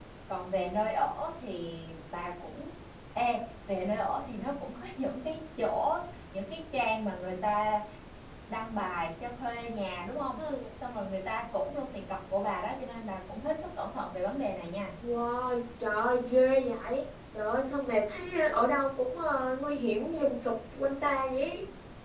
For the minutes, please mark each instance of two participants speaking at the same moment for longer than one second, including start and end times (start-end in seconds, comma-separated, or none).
none